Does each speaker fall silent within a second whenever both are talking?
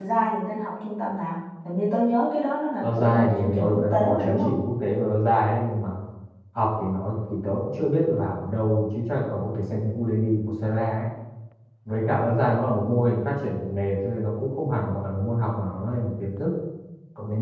No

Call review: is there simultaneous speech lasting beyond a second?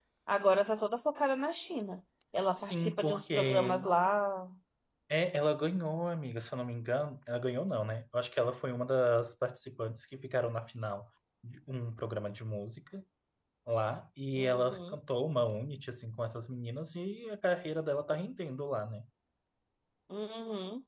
Yes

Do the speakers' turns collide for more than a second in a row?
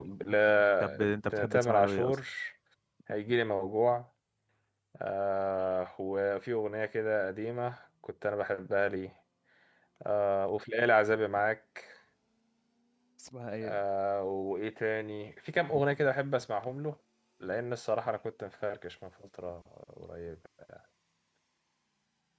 Yes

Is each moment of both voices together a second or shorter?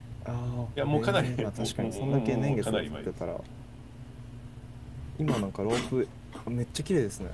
No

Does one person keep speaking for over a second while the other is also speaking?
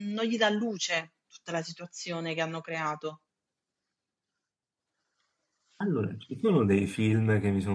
No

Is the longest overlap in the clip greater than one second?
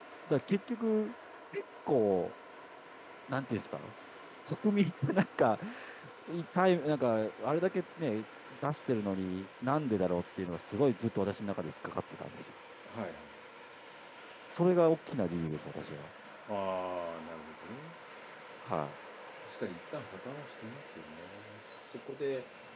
No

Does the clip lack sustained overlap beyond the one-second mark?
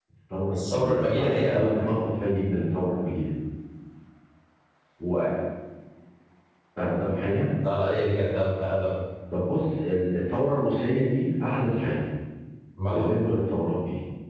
No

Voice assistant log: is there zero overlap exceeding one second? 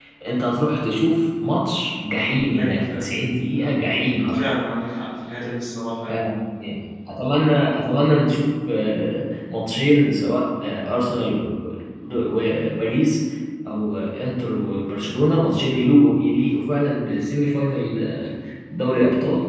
Yes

